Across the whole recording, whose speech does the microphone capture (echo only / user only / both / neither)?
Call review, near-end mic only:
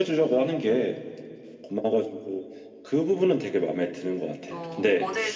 both